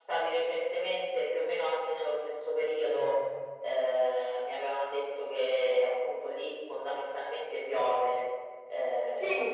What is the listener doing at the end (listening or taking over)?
taking over